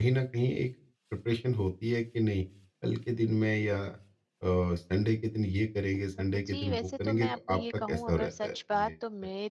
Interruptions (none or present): present